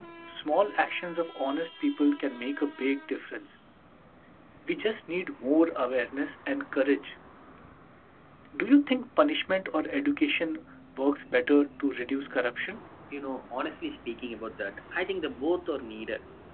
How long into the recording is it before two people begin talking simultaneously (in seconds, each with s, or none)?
none